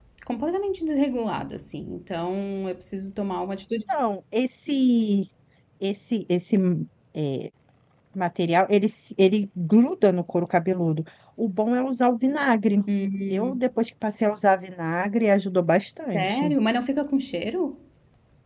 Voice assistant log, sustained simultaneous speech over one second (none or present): none